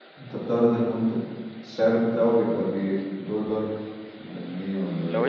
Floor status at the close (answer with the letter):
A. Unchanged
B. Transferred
B